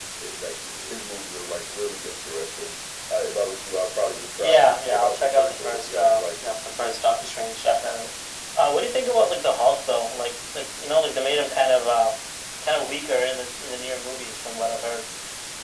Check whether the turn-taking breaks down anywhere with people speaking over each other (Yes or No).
Yes